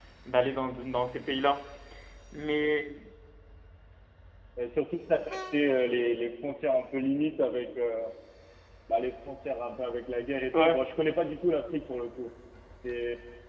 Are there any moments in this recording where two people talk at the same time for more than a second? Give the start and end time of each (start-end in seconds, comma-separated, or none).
none